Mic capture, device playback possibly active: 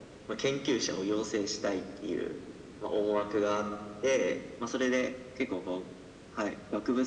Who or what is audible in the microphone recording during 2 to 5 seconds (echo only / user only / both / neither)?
echo only